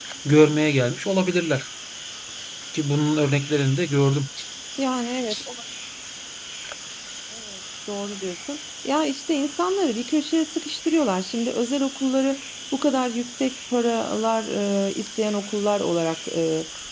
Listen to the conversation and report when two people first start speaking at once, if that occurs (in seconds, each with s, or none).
none